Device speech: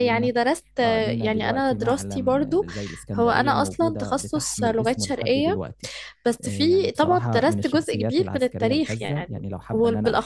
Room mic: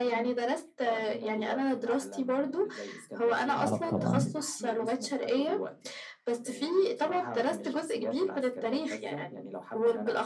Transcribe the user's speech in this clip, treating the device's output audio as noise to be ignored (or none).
اه طبعا